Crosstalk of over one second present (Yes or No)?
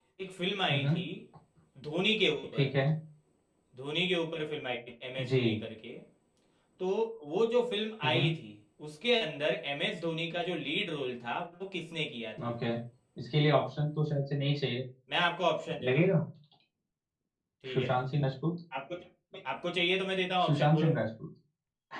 No